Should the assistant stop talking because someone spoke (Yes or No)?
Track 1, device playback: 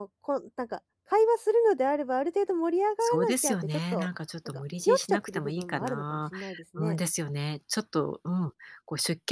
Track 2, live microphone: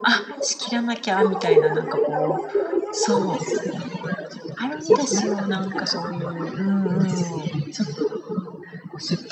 Yes